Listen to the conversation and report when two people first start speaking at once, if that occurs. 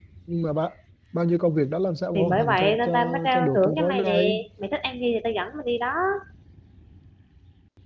2 s

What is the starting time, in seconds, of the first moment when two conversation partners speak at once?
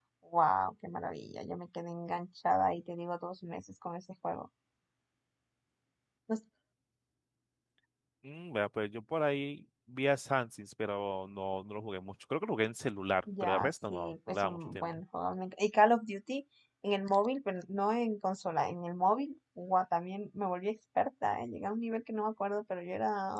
13 s

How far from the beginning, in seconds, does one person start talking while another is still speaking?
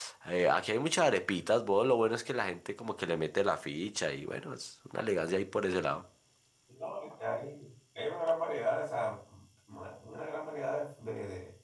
none

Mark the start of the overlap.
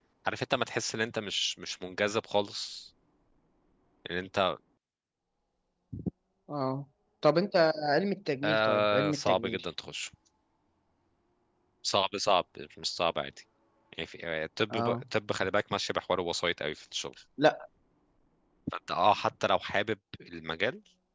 8 s

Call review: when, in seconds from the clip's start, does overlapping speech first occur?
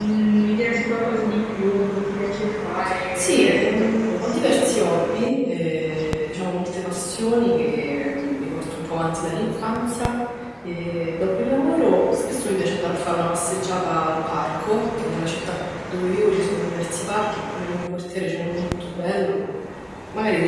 3 s

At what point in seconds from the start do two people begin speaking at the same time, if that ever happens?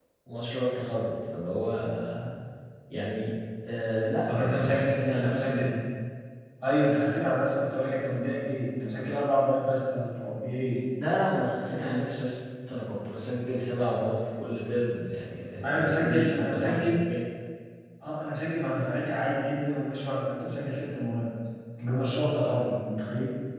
4 s

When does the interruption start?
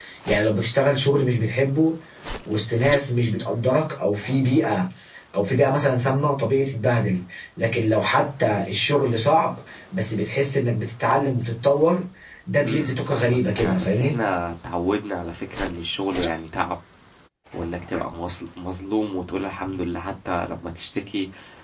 13 s

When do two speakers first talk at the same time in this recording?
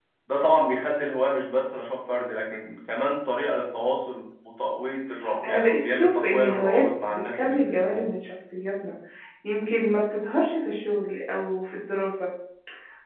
5 s

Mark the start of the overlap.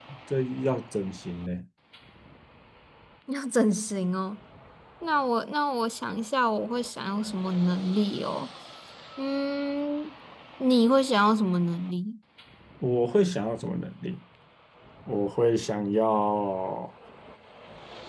none

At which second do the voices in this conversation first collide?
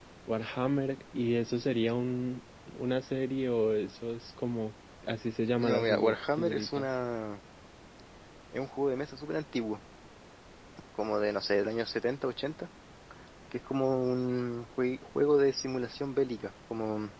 6 s

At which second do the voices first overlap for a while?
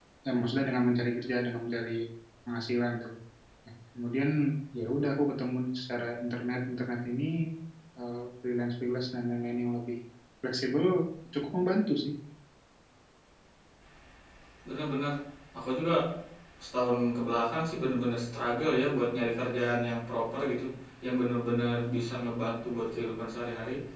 none

